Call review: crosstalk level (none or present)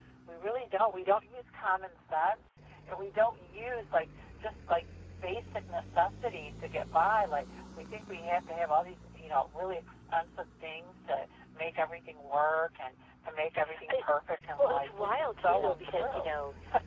present